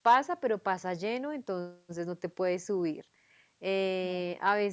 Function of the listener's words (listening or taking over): listening